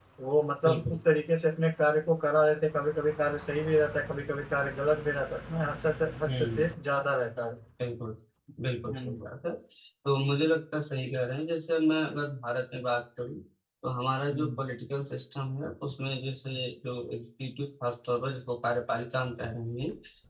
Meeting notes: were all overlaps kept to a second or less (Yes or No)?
Yes